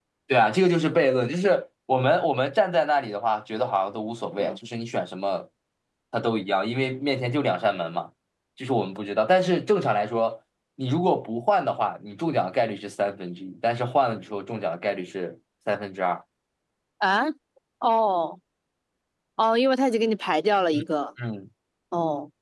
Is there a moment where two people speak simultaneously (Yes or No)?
No